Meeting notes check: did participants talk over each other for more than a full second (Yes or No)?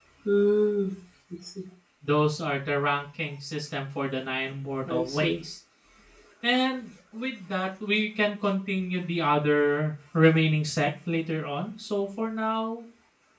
No